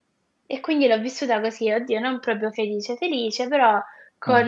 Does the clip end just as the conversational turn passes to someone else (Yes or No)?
No